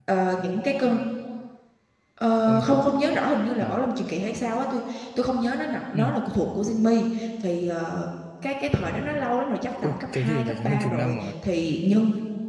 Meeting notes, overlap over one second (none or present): present